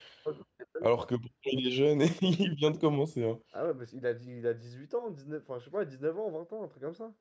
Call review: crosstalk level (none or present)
none